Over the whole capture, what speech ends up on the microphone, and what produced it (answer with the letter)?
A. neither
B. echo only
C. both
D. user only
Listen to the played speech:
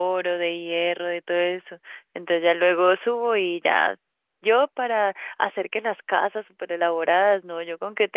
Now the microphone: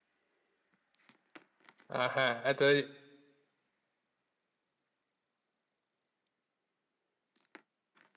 D